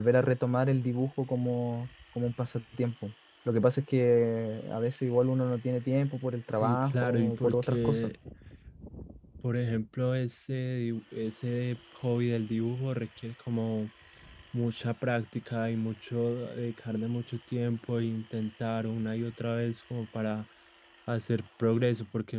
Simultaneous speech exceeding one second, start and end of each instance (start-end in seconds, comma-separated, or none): 6.5-8.1